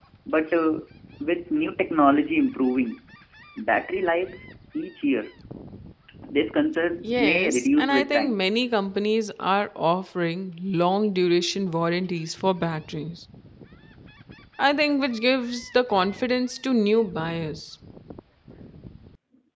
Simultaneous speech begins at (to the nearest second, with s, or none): 7 s